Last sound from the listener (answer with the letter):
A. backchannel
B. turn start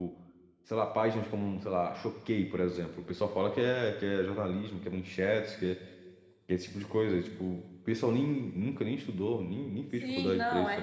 B